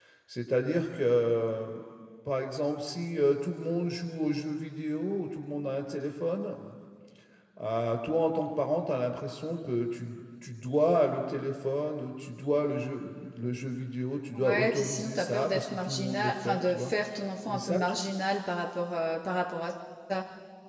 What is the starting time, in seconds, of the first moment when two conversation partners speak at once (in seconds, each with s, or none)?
14.4 s